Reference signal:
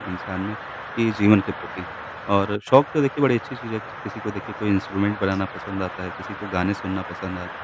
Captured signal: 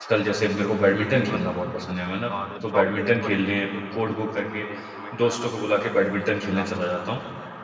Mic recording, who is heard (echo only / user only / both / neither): both